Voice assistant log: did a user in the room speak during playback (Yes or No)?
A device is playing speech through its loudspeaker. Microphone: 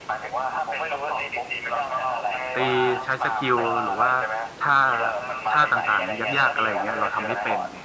Yes